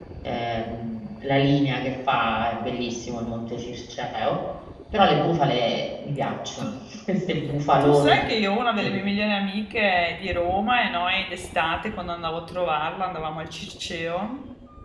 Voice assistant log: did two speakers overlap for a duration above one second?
No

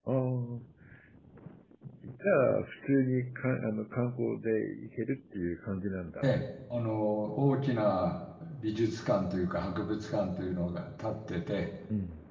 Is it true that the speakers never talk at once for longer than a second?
Yes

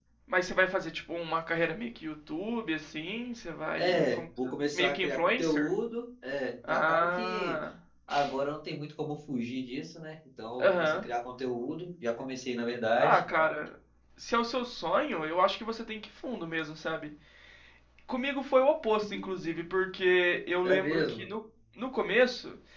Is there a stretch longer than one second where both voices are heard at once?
Yes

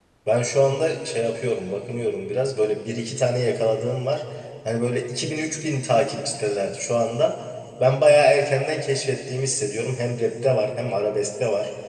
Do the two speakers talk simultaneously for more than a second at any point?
No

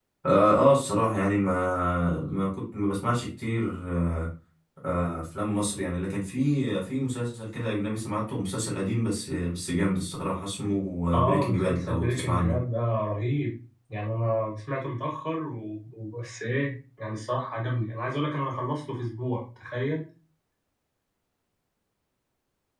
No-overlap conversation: No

